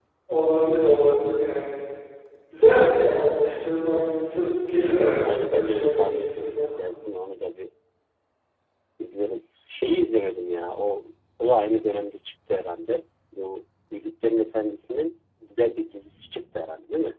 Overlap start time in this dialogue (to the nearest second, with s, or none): 5 s